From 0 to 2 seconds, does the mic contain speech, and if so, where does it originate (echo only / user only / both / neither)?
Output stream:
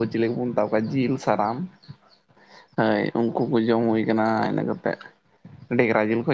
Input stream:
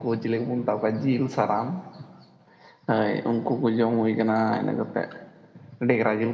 echo only